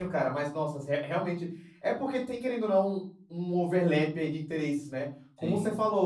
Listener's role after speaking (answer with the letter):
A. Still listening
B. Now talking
A